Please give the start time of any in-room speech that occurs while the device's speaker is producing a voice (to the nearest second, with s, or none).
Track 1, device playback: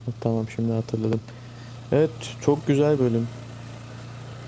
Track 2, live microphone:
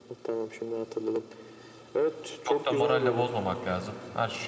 2 s